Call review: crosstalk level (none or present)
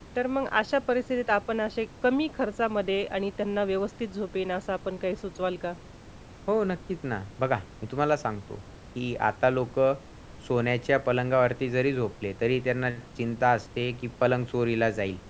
none